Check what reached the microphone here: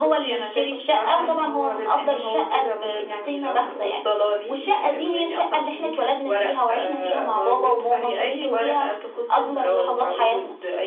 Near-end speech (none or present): none